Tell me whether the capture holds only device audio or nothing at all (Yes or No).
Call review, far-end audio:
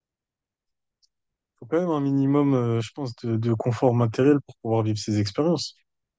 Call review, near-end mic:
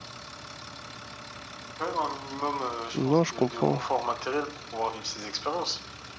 No